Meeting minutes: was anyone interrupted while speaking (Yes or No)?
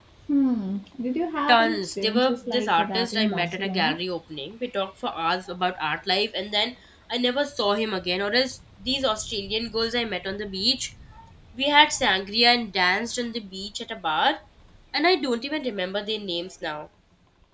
Yes